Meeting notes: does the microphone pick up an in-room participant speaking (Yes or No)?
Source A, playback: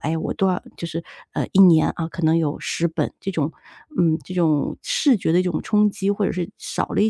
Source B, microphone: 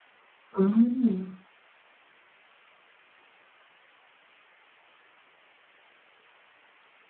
Yes